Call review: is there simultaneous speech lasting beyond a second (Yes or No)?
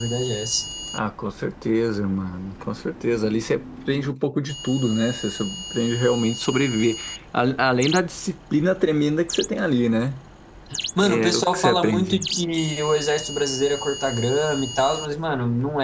Yes